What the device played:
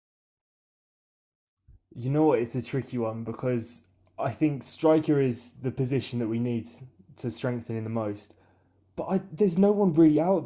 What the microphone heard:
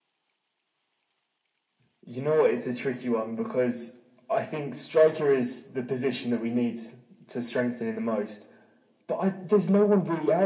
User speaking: No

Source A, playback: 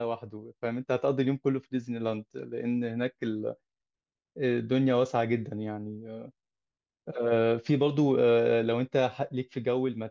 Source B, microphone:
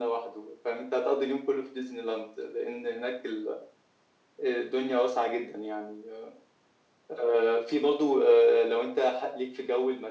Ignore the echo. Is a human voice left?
No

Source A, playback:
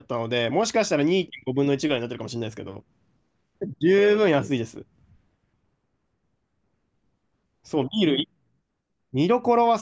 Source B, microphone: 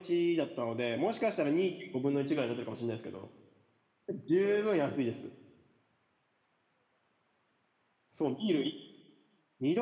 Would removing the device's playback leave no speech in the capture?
Yes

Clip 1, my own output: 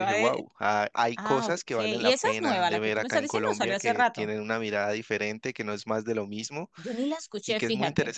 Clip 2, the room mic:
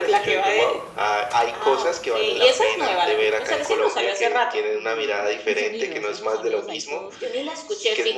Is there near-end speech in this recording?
Yes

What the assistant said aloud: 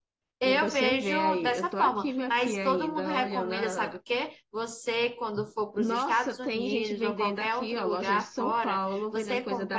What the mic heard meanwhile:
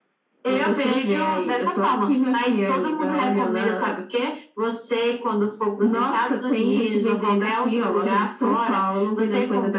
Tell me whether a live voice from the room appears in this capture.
No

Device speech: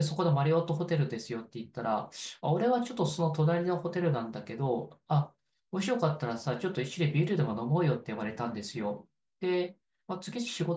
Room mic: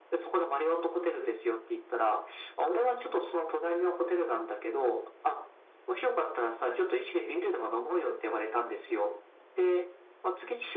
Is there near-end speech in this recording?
No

